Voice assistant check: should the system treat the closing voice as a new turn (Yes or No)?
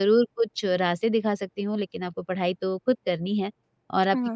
No